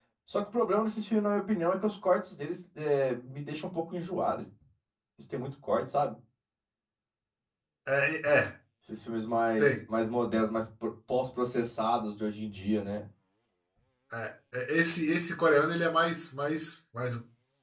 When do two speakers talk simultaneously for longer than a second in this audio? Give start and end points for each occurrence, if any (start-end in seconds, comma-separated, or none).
none